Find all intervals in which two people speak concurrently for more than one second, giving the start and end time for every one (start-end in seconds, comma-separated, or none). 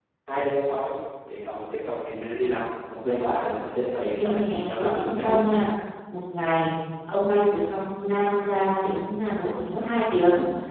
4.2-5.6